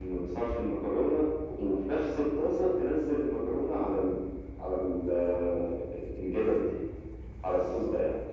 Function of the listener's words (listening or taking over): taking over